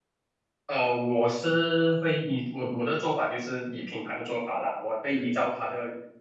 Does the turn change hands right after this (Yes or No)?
No